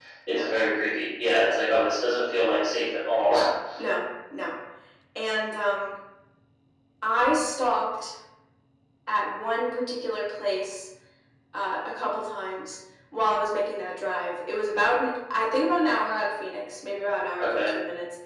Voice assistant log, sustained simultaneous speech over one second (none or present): none